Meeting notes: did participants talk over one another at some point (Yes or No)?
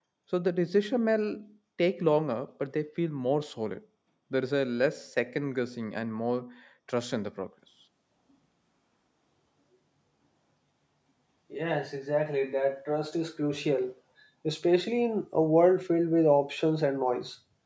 No